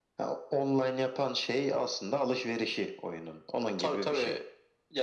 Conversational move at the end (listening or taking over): taking over